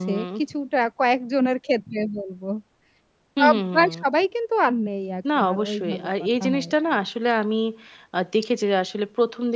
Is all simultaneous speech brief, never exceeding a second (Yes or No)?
No